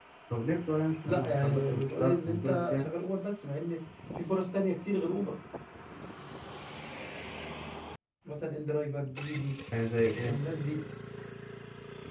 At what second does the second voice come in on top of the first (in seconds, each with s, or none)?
1.1 s